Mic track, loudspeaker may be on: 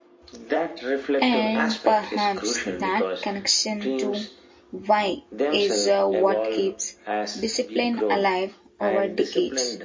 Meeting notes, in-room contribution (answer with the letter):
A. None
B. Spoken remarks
B